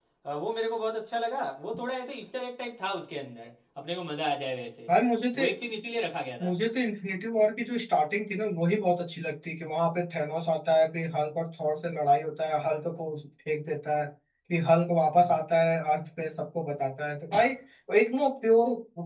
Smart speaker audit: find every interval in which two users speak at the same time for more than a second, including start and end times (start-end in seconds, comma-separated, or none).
none